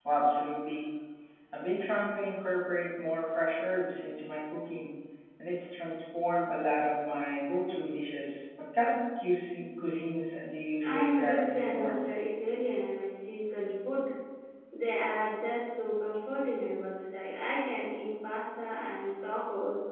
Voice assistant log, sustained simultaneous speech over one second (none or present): present